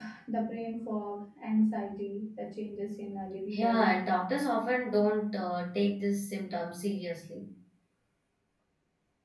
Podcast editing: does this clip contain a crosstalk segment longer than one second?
No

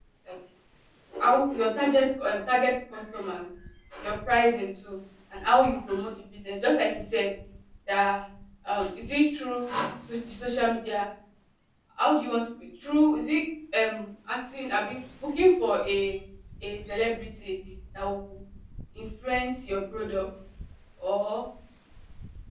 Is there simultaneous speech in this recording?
No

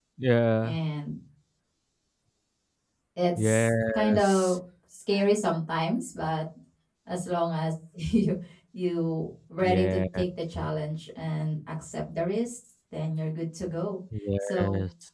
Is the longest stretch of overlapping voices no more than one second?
No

